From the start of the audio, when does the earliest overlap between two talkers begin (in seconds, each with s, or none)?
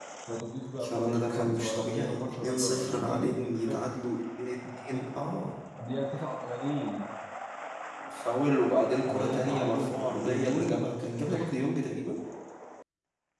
0.9 s